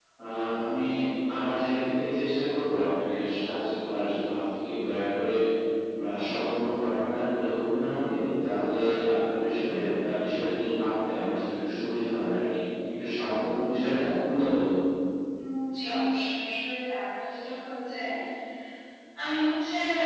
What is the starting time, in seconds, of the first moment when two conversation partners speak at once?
none

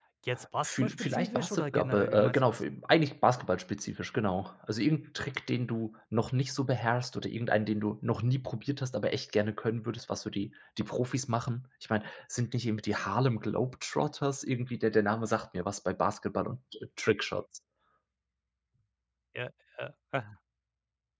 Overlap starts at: 0.6 s

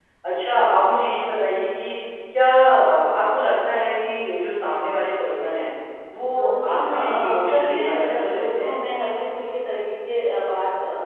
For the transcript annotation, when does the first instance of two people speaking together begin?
6.4 s

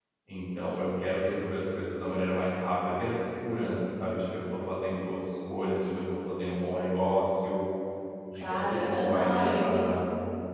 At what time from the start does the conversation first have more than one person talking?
8.4 s

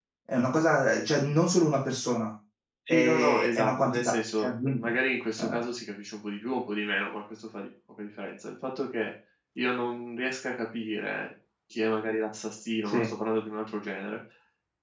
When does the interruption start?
2.9 s

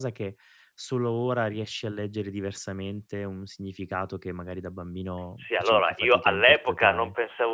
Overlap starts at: 5.4 s

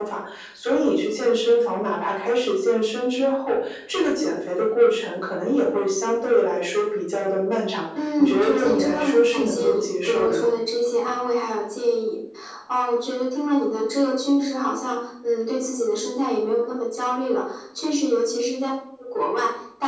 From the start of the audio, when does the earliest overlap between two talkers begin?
8.0 s

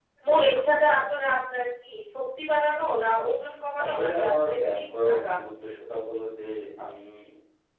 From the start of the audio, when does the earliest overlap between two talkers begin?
3.8 s

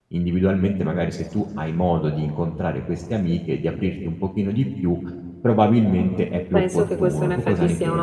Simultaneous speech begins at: 6.5 s

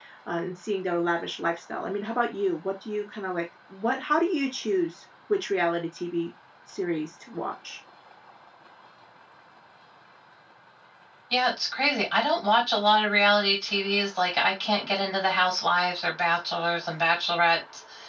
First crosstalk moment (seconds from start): none

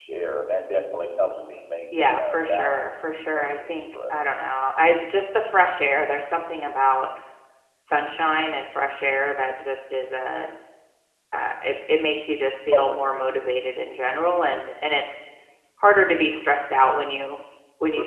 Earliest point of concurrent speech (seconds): 1.9 s

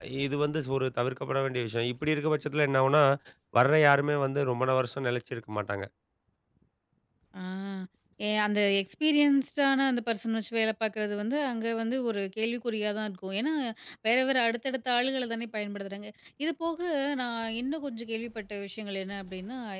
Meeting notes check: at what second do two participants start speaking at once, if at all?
none

